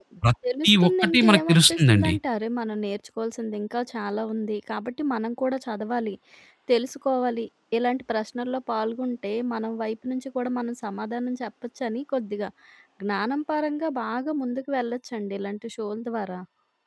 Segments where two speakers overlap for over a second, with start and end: 0.6-2.1

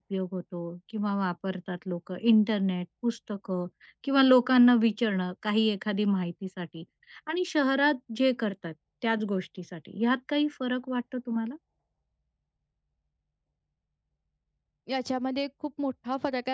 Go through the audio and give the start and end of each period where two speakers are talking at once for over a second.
none

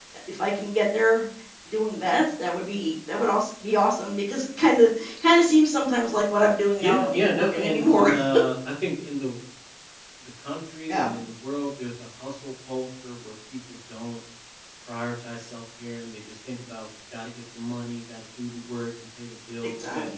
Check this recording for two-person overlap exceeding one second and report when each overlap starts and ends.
6.8-8.1

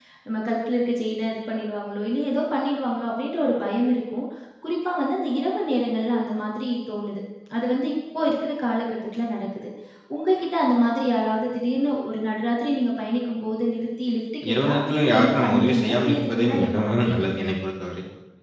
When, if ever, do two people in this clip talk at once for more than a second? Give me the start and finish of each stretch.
14.5-17.4

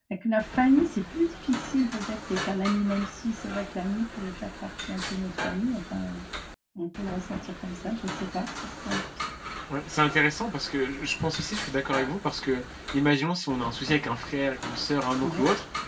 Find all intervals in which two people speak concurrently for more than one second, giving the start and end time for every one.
none

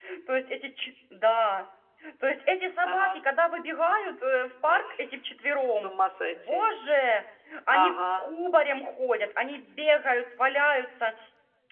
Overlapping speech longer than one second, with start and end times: none

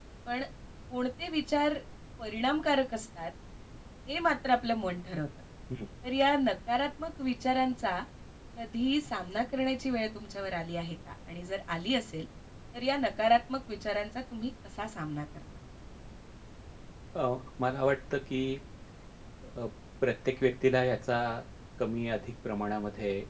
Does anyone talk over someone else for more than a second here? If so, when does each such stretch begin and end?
none

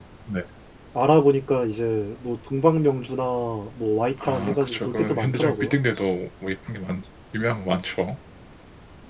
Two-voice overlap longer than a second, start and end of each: 4.2-5.8

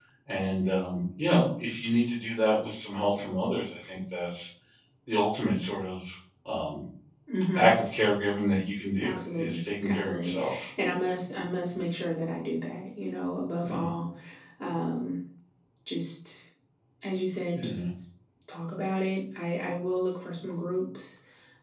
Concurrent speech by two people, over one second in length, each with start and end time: 9.0-10.4

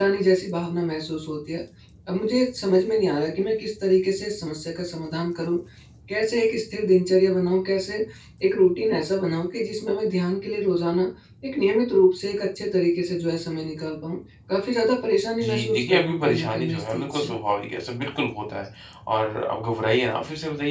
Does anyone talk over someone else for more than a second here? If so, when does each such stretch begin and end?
15.4-17.3

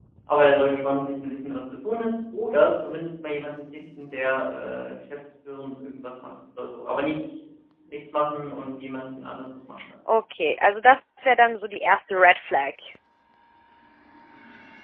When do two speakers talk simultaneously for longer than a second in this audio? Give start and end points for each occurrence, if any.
none

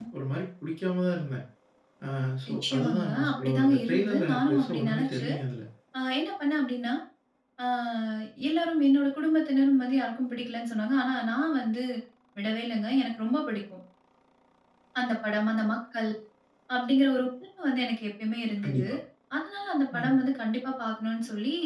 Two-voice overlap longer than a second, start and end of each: 2.5-5.3

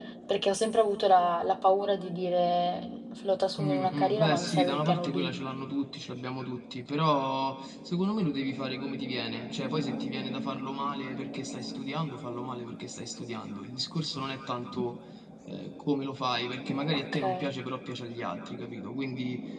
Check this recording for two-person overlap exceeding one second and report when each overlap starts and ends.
3.6-5.3

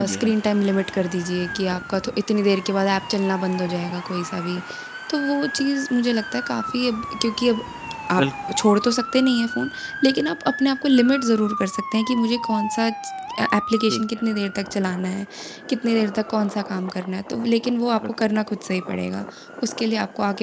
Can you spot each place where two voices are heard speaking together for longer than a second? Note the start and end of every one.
none

